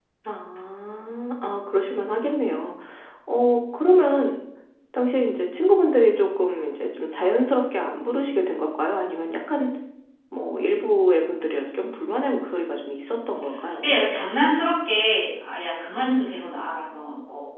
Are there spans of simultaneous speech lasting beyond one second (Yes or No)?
No